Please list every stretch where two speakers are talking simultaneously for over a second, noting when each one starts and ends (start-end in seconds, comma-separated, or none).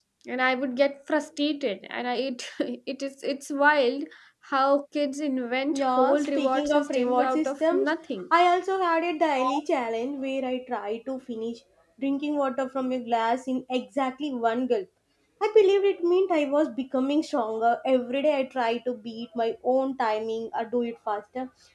5.7-7.9